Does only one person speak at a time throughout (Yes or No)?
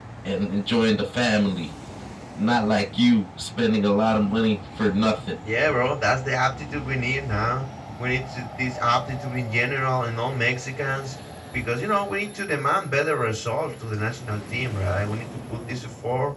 Yes